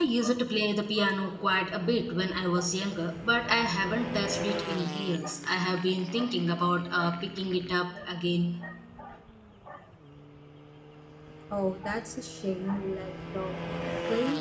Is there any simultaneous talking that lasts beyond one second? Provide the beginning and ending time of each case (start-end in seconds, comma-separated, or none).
none